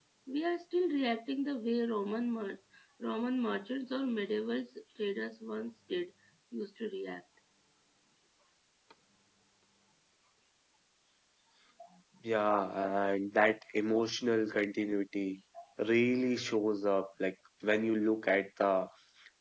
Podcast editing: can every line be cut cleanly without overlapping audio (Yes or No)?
Yes